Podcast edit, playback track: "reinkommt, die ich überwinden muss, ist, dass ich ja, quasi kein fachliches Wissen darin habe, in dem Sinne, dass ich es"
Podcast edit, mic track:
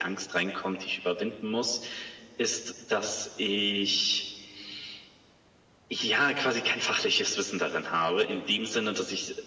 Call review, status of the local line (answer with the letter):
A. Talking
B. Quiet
B